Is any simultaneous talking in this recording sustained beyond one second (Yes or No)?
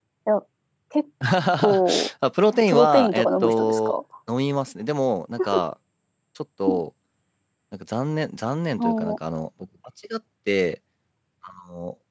Yes